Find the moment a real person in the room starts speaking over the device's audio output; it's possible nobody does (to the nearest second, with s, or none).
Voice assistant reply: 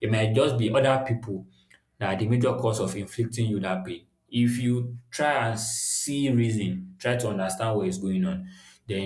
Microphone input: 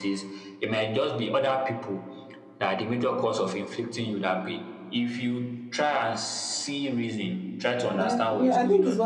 8 s